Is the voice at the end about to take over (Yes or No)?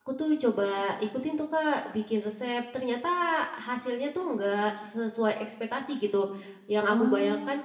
No